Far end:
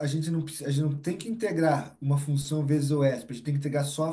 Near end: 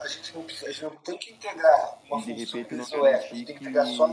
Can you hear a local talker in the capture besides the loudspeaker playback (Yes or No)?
Yes